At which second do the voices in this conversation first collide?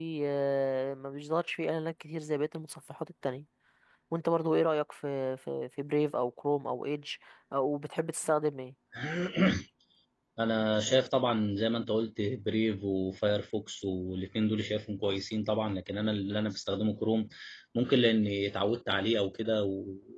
none

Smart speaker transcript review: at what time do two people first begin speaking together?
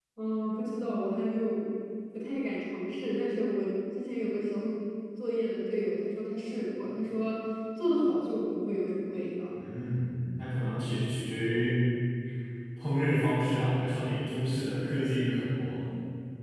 none

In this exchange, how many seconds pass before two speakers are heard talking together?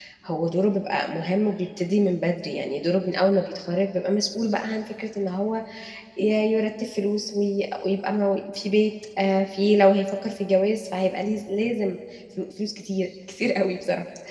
none

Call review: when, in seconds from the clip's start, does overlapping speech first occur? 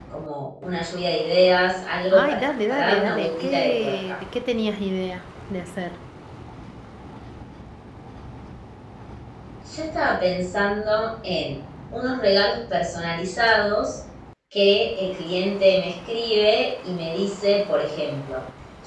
2.1 s

